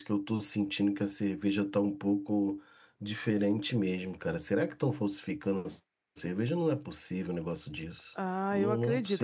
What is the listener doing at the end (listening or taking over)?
taking over